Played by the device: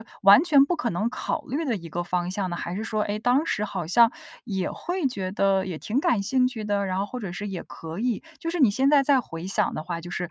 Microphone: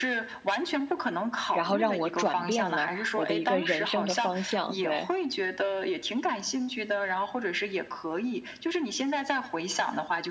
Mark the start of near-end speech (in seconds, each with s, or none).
1.5 s